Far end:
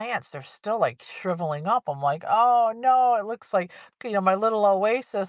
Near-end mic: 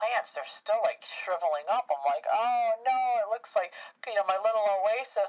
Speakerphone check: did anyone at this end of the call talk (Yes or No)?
No